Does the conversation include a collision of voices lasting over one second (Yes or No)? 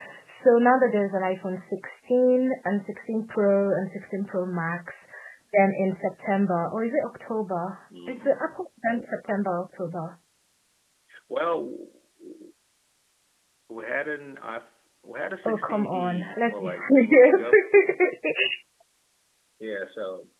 Yes